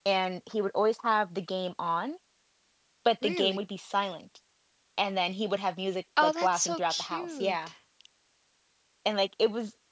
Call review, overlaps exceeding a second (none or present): present